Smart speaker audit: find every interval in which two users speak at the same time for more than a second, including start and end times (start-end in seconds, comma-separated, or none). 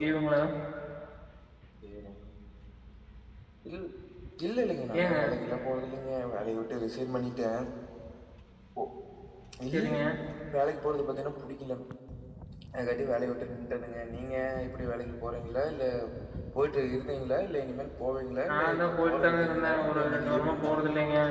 18.5-20.7